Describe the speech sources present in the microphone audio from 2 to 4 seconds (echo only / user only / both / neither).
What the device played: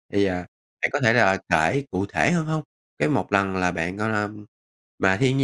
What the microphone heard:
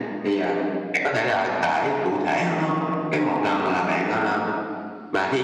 echo only